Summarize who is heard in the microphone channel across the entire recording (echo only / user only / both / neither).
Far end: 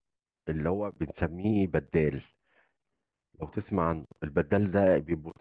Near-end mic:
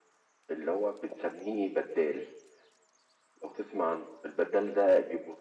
echo only